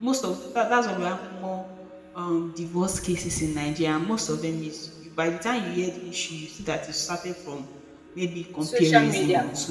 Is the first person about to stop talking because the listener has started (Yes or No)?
No